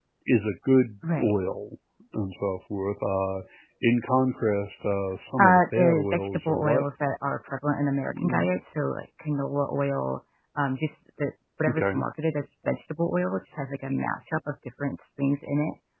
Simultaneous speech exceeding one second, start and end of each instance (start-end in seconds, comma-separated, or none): 5.4-6.8